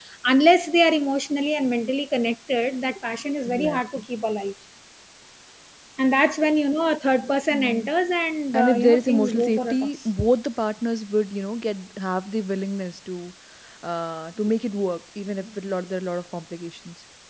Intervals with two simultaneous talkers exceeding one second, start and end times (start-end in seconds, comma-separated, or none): 8.5-9.9